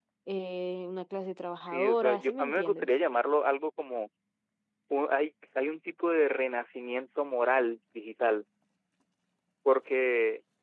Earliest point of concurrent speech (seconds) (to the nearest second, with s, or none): 2 s